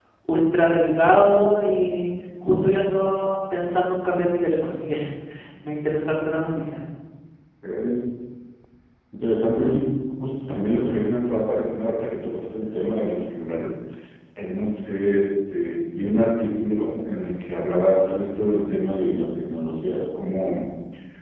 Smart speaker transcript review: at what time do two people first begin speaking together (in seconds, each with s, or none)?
none